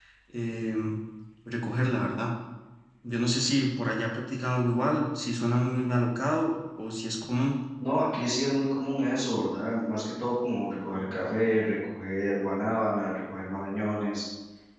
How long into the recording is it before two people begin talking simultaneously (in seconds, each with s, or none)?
none